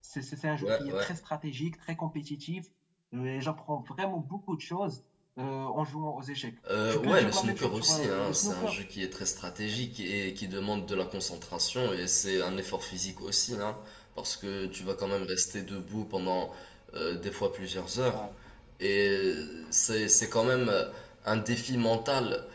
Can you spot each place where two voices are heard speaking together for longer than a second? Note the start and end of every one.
6.9-8.8

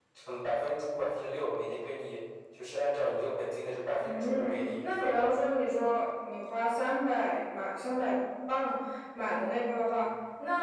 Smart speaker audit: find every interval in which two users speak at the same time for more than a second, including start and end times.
4.0-5.4

